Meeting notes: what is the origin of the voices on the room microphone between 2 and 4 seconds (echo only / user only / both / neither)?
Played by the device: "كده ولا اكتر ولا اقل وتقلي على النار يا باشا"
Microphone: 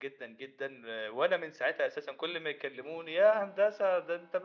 user only